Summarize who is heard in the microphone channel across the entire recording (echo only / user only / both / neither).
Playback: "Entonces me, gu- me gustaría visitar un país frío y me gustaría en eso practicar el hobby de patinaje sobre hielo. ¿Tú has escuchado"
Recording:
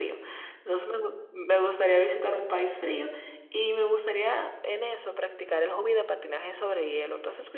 echo only